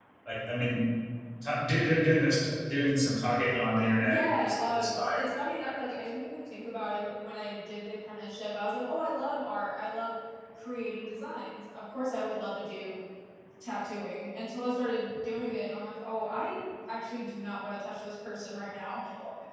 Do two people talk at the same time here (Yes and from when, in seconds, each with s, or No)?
Yes, from 3.8 s